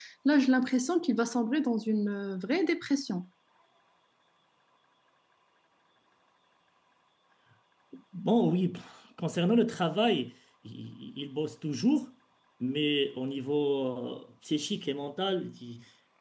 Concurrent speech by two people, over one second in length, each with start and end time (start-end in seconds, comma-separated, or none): none